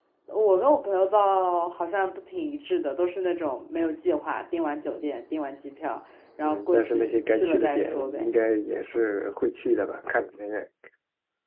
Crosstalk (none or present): present